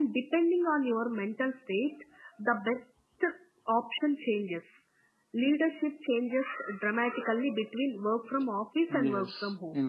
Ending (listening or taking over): taking over